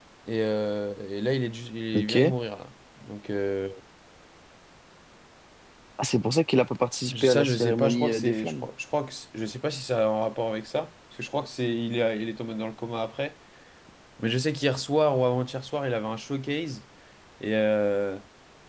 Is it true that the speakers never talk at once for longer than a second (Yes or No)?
No